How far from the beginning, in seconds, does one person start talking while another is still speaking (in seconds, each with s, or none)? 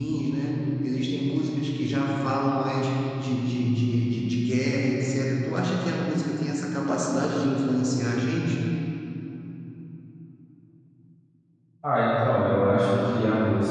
none